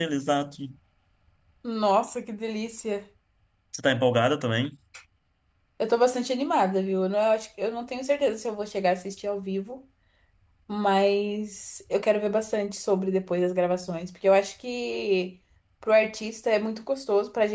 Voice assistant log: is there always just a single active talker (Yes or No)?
Yes